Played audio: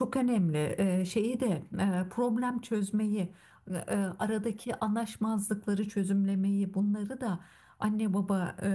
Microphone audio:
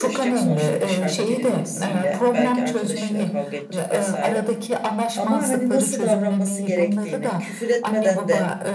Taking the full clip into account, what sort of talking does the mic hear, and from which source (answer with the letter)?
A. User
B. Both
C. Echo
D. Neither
B